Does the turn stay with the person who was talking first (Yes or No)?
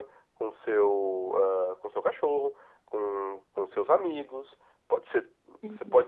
Yes